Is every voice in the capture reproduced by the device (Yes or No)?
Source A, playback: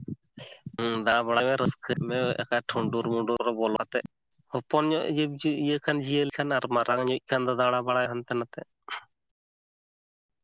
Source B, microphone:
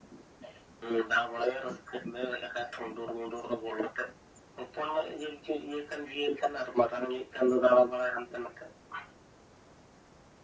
Yes